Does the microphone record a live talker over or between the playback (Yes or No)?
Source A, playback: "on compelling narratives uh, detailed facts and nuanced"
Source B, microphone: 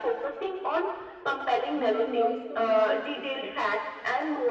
Yes